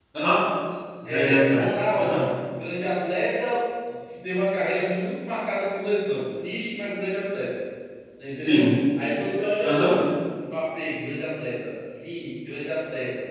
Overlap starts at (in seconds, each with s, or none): 1.0 s